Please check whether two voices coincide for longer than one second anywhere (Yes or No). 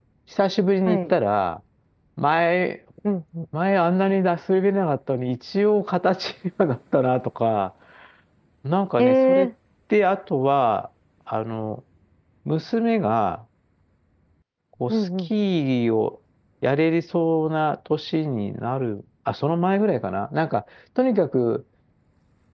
No